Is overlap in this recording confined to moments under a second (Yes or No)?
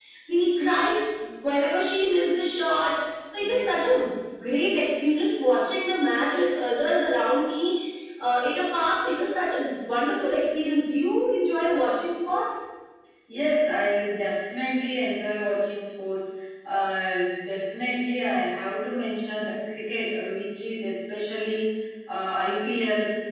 Yes